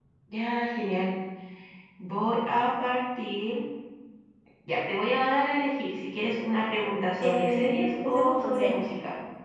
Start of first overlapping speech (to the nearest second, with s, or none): 7 s